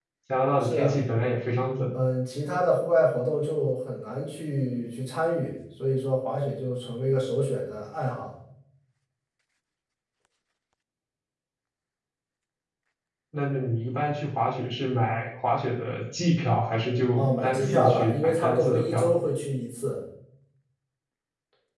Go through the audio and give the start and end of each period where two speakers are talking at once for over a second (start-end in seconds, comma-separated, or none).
17.2-19.2